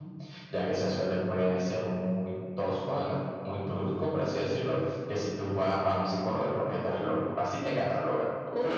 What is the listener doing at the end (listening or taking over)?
taking over